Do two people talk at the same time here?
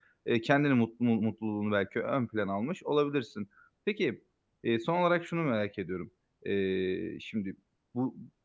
No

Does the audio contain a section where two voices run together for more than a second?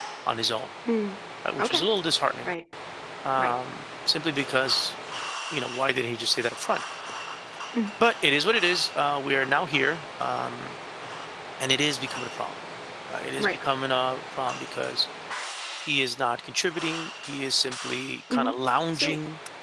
No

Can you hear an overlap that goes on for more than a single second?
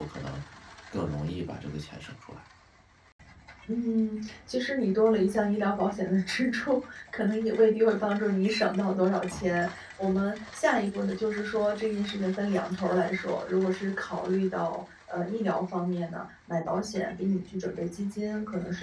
No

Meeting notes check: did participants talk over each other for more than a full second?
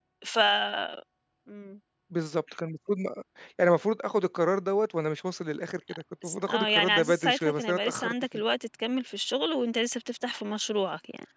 Yes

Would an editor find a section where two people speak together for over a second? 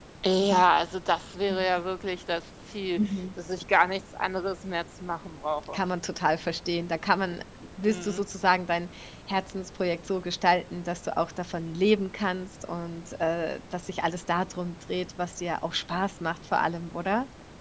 No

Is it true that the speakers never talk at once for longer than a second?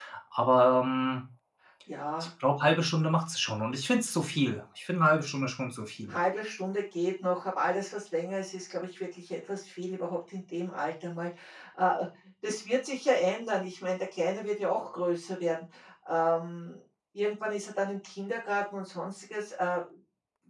Yes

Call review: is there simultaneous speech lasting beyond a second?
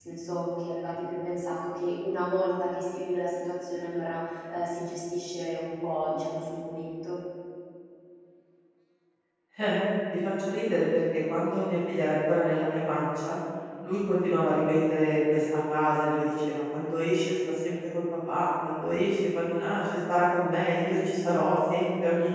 No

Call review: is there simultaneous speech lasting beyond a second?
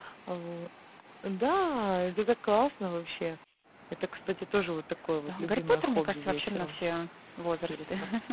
Yes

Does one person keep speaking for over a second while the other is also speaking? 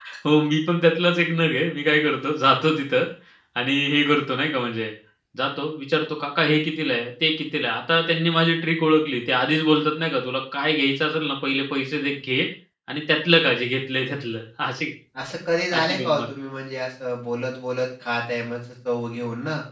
No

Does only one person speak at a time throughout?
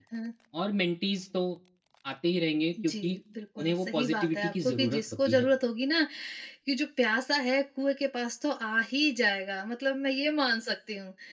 No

